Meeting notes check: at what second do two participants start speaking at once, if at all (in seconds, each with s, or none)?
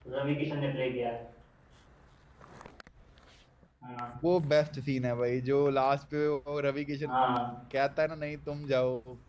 none